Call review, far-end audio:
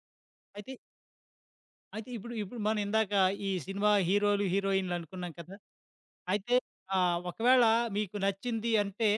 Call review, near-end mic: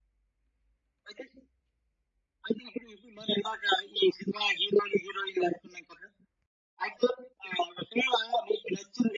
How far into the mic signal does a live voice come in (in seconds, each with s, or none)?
none